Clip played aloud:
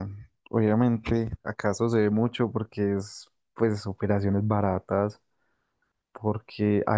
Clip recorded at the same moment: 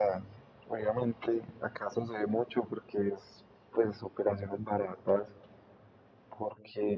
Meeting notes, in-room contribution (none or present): none